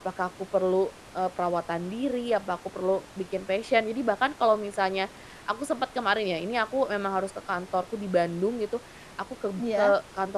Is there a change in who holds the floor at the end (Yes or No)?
No